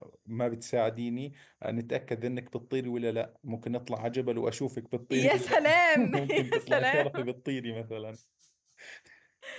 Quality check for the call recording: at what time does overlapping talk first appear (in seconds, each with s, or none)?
5.1 s